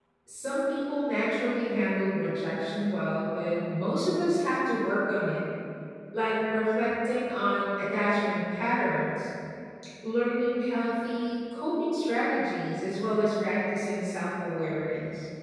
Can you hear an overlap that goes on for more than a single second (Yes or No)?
No